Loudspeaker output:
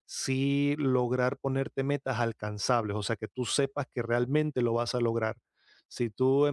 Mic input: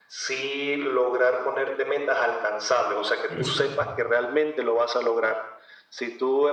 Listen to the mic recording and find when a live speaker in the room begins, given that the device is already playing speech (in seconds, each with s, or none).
3.3 s